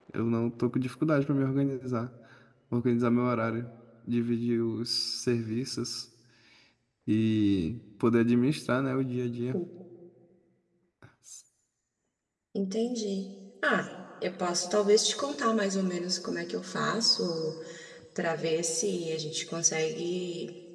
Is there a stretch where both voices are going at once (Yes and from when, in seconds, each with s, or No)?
No